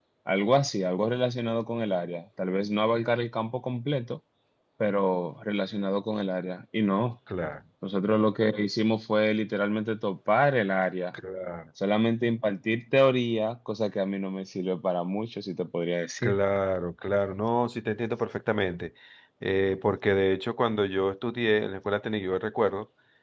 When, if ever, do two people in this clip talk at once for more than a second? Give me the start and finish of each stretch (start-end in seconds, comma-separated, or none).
none